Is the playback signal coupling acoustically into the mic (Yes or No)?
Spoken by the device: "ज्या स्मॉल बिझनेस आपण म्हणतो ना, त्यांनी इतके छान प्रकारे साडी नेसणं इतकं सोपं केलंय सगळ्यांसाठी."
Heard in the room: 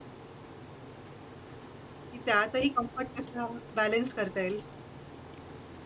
No